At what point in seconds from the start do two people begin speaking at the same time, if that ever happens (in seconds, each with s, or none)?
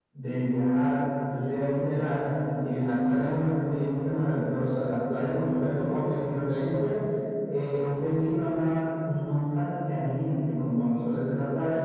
none